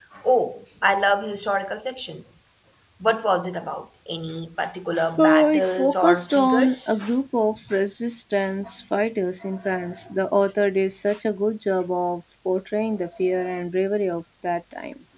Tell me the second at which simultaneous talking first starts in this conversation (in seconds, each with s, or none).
5.2 s